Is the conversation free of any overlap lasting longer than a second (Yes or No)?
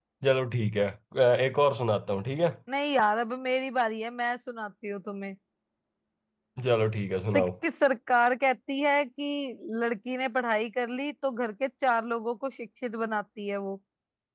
Yes